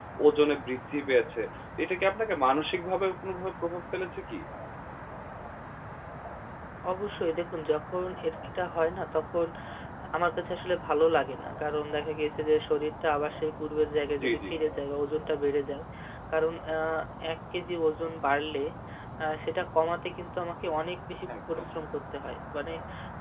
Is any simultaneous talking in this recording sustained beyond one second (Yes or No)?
No